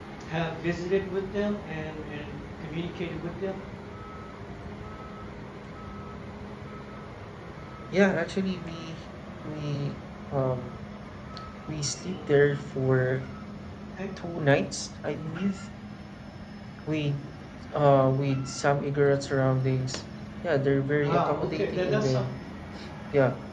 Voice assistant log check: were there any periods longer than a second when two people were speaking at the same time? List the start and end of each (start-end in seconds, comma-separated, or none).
21.0-22.4